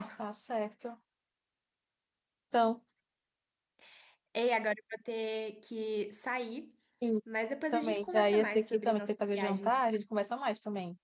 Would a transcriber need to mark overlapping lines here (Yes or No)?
Yes